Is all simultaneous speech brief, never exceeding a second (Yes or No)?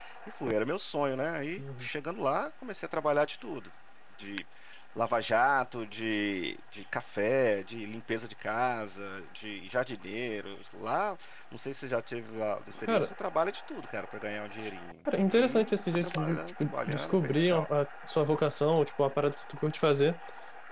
No